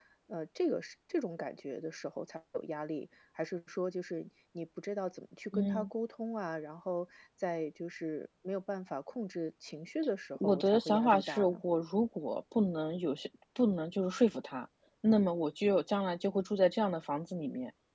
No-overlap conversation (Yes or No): No